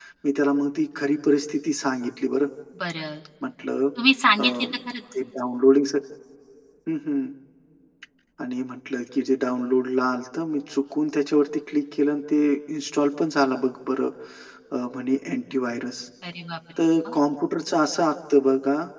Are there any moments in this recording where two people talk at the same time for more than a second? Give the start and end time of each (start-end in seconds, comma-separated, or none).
none